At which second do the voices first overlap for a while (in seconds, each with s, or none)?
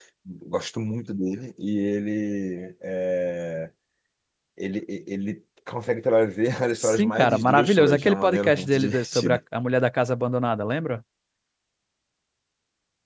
6.8 s